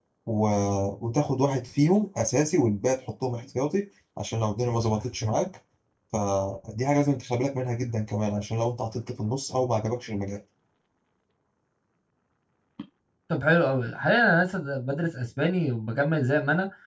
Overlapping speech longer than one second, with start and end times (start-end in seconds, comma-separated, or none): none